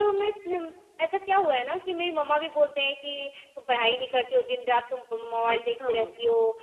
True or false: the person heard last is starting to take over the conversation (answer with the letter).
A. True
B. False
B